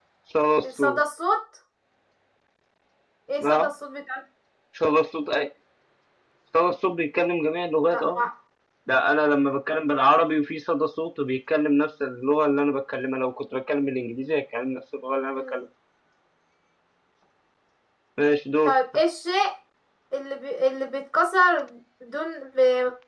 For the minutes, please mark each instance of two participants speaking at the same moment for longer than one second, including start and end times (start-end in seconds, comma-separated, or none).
none